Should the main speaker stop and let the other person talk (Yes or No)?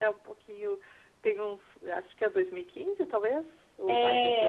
Yes